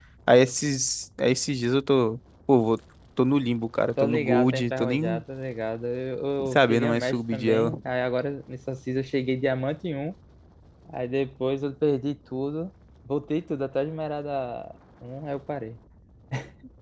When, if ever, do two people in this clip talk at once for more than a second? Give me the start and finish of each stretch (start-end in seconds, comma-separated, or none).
4.0-5.2, 6.5-7.8